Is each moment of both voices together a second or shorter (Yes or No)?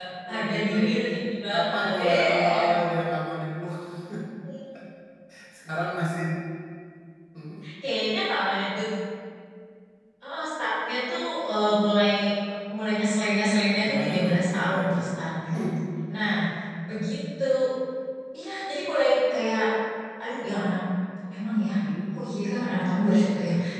No